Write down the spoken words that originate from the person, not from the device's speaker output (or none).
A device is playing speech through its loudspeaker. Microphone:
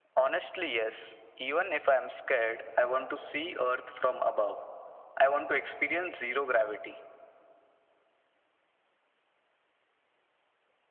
none